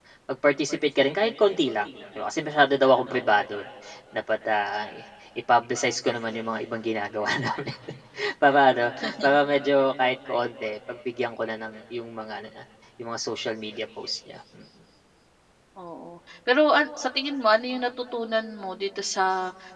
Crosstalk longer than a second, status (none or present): none